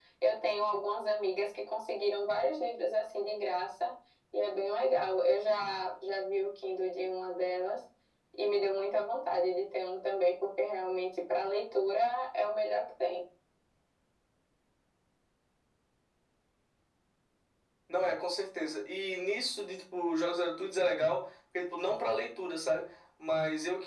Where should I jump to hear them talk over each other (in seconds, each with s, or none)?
none